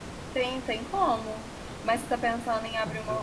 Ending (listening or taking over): listening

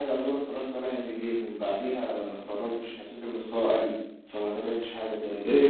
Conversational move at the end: taking over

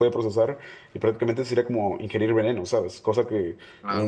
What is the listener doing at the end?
listening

